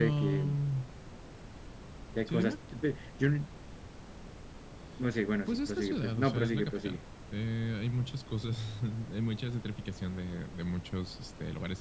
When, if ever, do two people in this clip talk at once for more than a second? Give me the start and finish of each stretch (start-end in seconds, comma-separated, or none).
5.5-7.0